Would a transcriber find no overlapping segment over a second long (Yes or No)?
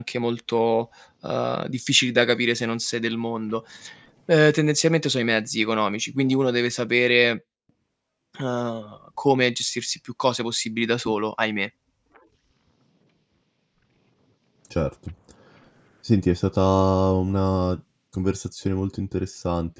Yes